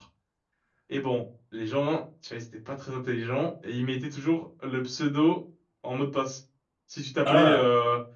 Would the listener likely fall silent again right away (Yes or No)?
Yes